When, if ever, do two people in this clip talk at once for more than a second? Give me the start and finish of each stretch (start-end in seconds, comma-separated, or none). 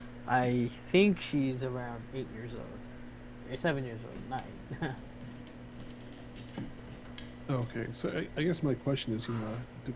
none